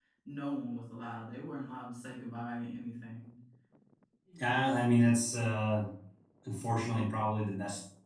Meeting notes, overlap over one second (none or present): none